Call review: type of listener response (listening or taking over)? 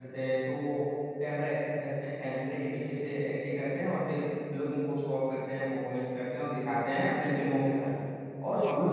listening